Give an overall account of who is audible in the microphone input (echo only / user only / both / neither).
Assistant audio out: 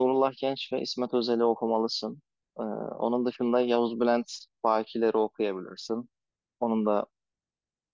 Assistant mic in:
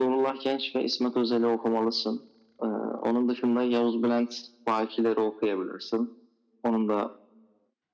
echo only